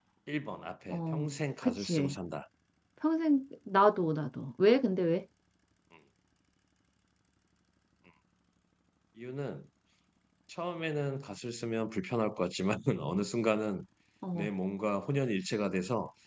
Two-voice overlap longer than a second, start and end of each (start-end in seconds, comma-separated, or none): 0.9-2.1